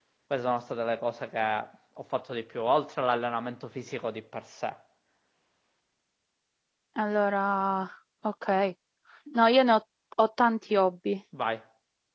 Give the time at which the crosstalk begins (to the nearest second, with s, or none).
none